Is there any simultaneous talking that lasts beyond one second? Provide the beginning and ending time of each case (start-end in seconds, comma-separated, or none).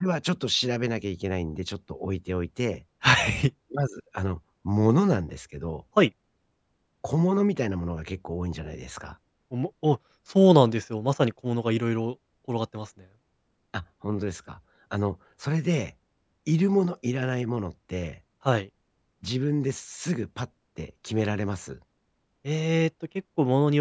none